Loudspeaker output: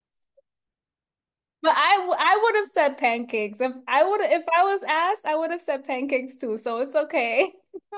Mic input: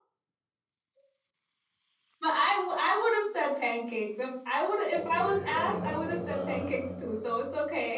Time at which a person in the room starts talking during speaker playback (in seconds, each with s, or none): 4.9 s